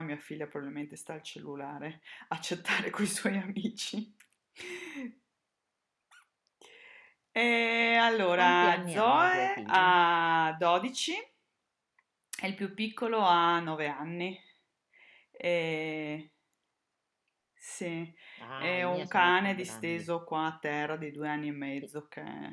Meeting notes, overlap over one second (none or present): present